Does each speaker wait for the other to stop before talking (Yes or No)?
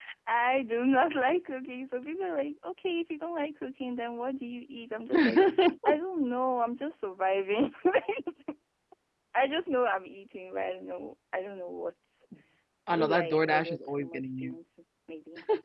No